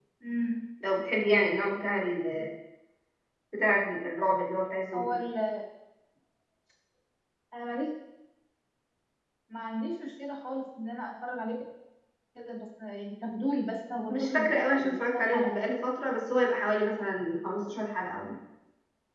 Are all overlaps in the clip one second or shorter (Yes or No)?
No